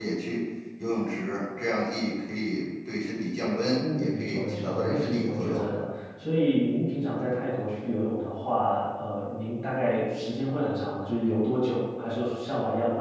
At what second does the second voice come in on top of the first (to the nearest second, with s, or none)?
4 s